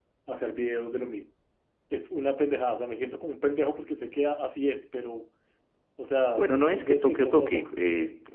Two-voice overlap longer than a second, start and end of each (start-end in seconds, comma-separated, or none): 6.3-7.7